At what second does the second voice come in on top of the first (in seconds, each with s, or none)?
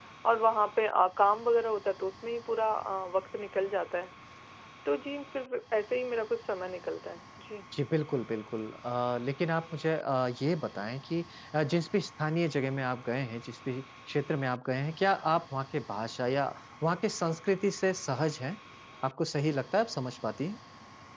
none